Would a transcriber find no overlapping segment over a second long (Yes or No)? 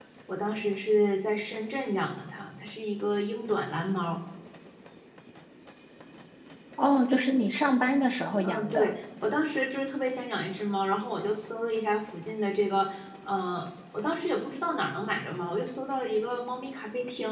Yes